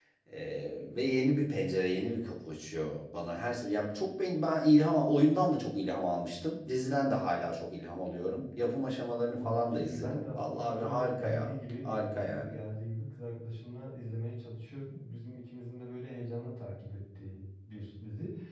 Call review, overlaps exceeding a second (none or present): present